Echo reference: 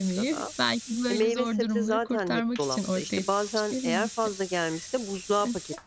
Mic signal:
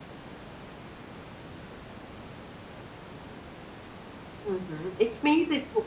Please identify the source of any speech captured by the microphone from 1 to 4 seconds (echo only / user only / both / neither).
neither